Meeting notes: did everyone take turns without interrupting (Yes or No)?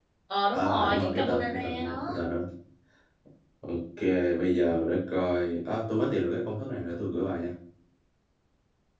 No